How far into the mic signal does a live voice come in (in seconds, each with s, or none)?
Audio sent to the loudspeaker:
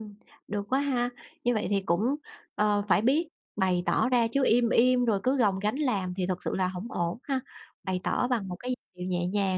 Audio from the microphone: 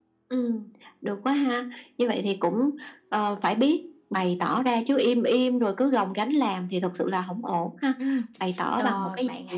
8.0 s